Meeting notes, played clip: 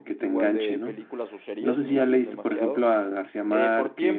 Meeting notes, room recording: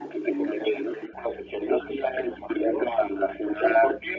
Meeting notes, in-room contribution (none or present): none